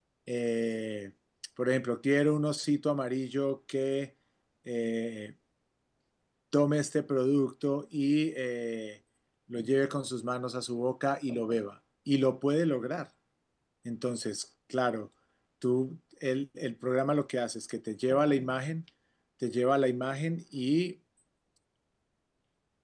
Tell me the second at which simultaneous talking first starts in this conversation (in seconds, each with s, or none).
none